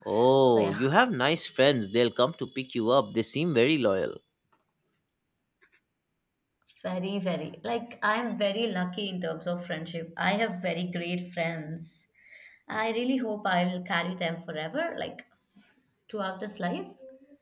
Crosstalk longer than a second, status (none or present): none